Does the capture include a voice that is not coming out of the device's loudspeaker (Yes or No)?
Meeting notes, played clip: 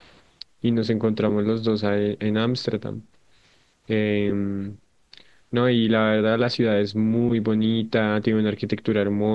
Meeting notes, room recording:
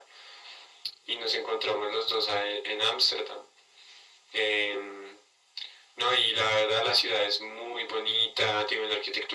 No